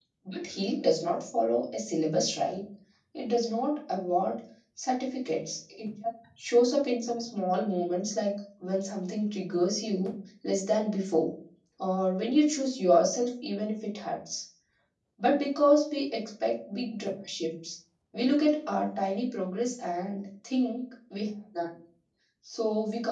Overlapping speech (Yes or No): No